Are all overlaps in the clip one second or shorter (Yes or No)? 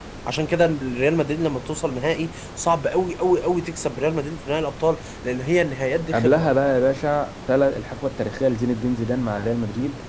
Yes